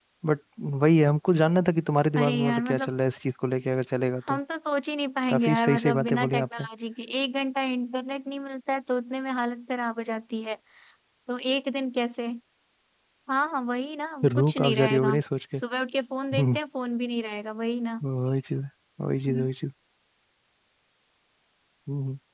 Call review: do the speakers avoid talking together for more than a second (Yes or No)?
No